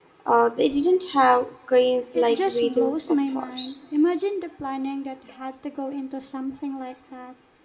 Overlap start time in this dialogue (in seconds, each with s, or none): 2.1 s